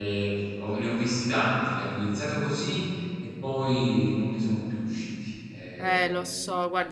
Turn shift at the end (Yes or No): Yes